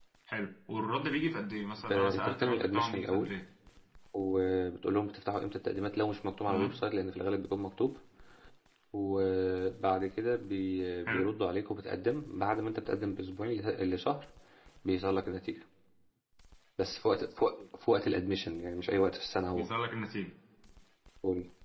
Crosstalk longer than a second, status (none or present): present